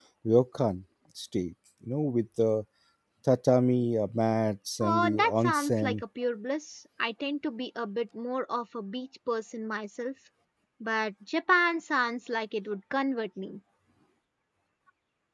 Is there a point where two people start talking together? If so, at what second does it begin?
4.8 s

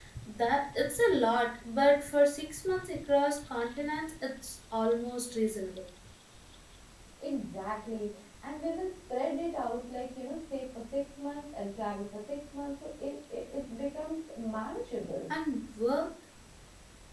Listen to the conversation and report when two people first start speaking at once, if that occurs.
none

